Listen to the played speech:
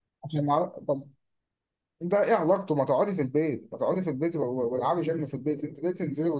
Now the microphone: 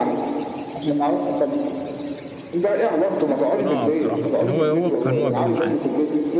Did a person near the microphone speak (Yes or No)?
Yes